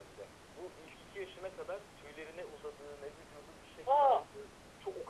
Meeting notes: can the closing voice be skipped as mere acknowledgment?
Yes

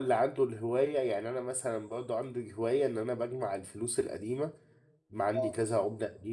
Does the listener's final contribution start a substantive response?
No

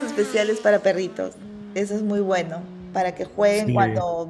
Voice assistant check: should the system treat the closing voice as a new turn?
No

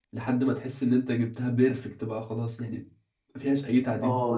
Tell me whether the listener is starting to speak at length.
Yes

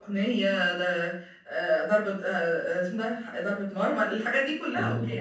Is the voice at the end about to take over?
Yes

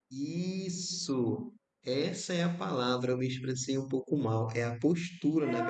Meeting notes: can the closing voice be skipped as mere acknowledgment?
No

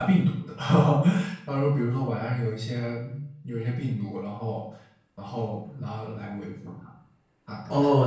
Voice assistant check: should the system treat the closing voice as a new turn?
Yes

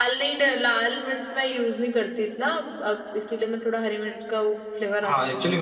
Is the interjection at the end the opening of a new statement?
Yes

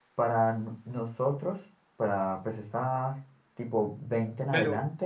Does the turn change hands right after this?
No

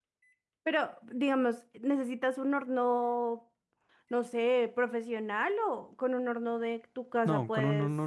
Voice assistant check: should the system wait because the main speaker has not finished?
No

